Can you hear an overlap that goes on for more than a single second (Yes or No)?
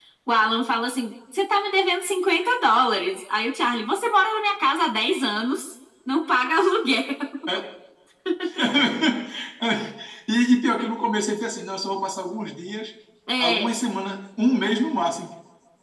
No